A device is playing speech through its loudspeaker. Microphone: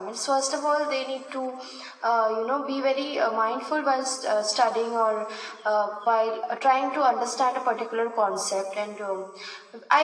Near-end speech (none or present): none